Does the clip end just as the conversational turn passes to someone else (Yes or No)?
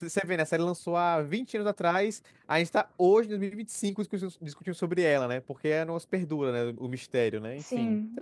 Yes